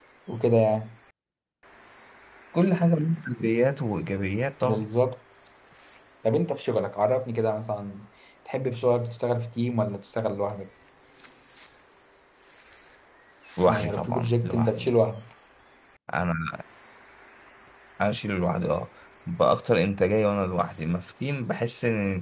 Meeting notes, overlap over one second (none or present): present